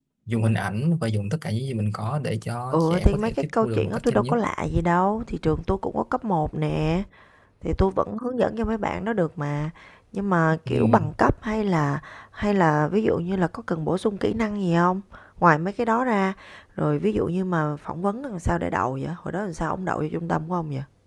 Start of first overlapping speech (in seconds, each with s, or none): 2.7 s